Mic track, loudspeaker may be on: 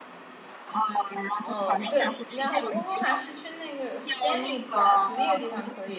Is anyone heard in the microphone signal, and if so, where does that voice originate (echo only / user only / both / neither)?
both